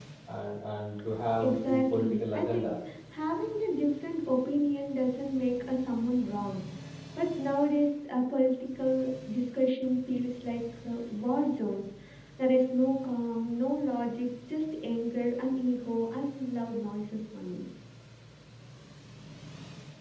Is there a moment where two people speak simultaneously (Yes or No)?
Yes